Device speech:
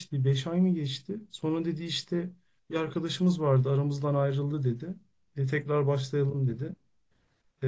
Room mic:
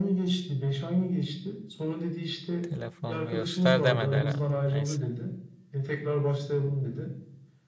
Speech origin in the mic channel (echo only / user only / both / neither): both